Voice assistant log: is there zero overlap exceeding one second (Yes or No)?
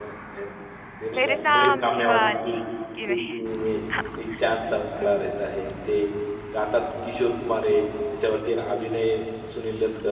No